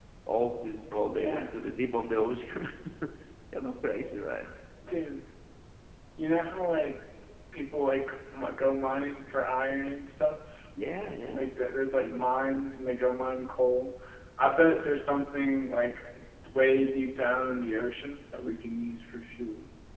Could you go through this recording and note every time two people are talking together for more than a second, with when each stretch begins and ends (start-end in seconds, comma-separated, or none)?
none